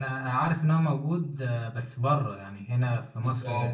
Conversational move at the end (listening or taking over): taking over